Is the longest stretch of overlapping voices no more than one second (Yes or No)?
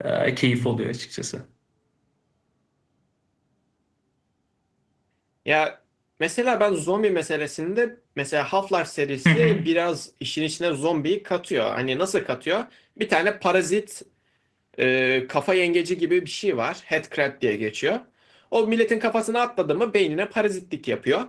Yes